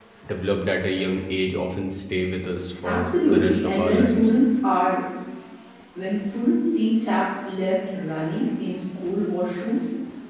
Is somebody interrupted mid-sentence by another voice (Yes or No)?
Yes